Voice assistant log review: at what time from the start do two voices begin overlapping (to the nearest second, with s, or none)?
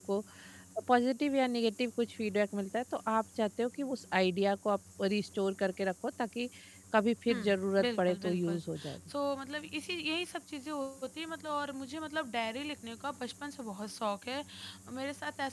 7 s